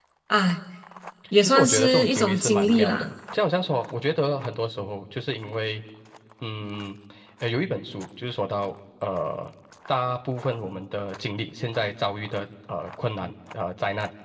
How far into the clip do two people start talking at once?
1.4 s

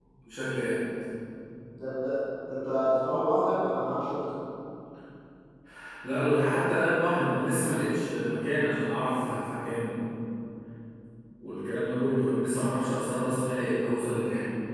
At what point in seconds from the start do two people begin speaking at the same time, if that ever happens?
none

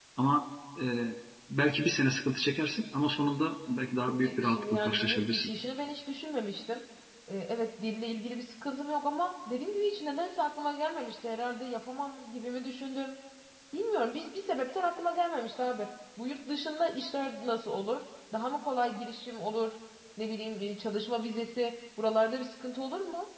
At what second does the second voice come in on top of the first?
4.1 s

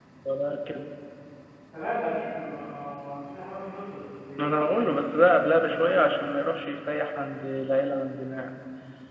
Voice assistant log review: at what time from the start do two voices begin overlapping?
4.4 s

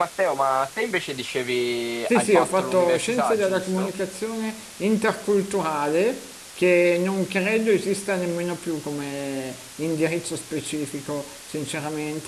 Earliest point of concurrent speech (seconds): 2.1 s

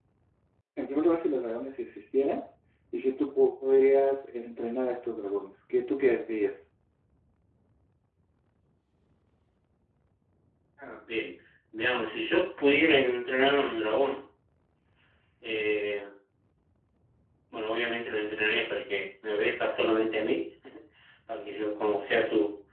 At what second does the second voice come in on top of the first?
none

